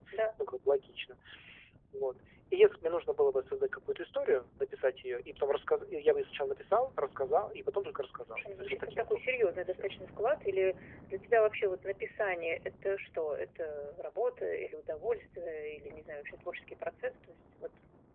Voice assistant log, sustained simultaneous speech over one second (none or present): present